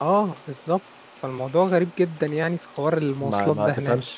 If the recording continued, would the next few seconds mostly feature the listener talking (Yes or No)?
Yes